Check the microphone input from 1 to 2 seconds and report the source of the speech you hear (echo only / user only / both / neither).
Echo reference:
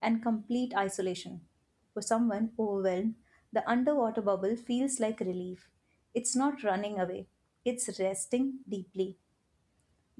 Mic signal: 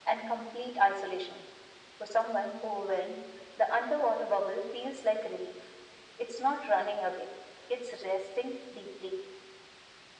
echo only